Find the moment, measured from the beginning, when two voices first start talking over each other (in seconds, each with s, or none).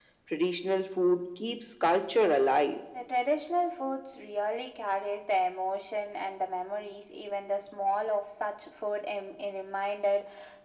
none